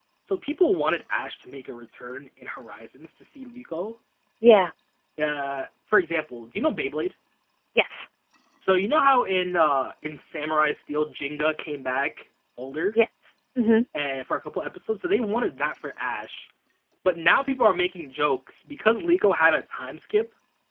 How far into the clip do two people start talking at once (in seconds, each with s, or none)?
none